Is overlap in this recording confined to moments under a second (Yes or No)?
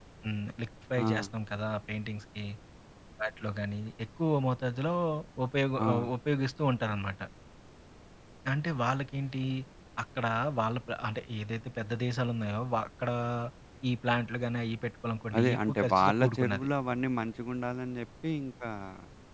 No